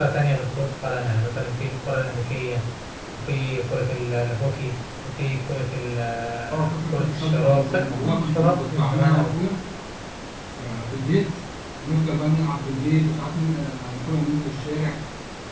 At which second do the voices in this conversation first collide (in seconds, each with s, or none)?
6.4 s